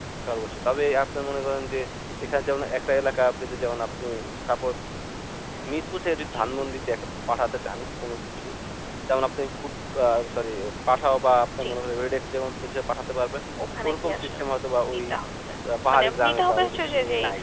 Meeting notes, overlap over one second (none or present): present